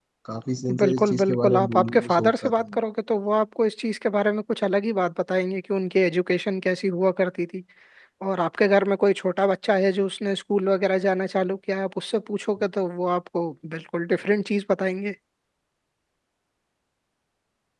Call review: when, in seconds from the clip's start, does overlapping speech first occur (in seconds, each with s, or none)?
0.8 s